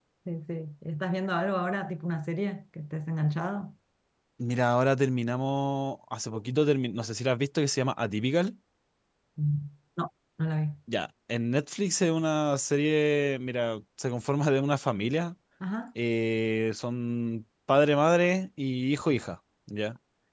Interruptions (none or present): none